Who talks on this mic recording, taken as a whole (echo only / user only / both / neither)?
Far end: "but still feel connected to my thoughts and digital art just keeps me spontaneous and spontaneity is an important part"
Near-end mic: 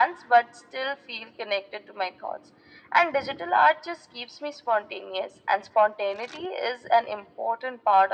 echo only